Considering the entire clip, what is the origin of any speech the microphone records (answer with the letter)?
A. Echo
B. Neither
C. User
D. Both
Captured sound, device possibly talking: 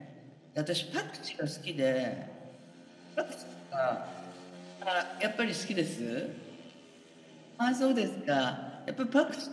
A